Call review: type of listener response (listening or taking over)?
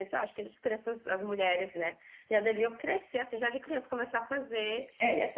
taking over